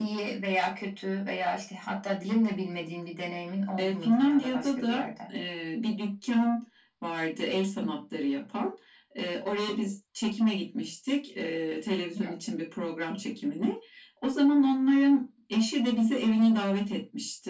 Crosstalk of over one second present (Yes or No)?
Yes